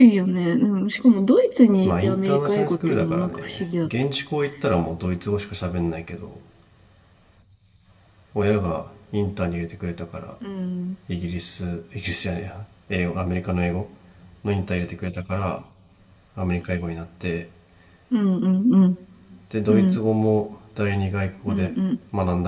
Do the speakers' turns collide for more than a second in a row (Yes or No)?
Yes